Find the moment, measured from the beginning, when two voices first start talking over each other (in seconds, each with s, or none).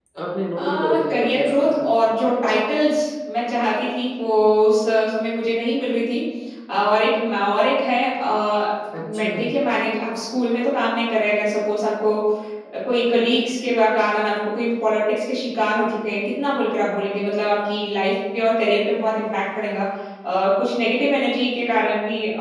0.6 s